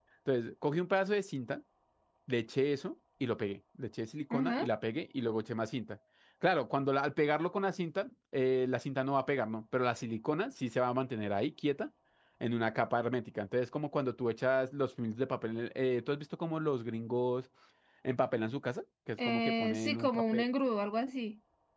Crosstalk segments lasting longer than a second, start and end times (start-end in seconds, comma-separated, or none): 19.2-20.5